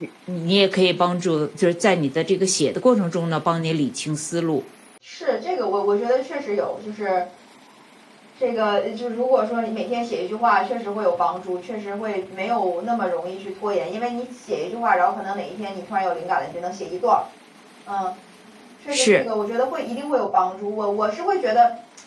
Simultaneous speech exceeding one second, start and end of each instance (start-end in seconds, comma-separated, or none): none